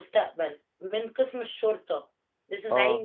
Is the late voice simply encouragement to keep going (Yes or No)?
Yes